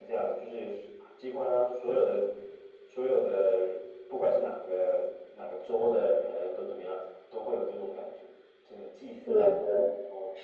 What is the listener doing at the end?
taking over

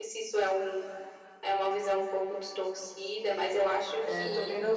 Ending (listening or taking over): taking over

